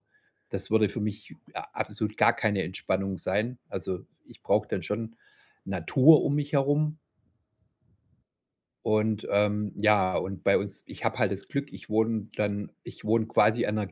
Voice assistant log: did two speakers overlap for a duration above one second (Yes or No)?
No